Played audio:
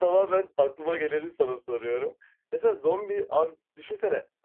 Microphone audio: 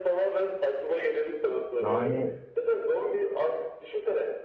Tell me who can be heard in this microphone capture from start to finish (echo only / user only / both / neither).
both